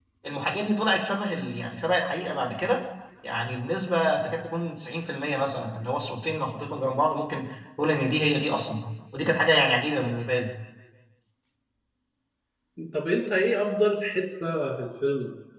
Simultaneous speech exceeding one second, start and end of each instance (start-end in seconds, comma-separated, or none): none